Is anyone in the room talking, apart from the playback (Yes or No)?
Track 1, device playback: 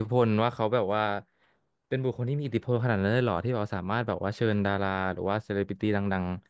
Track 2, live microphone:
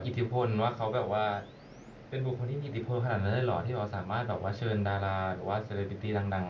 No